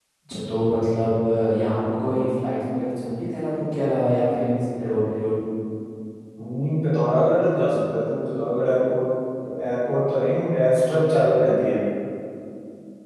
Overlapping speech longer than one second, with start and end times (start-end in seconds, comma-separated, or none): none